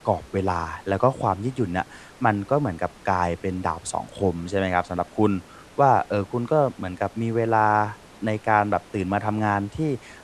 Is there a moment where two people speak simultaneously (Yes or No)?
No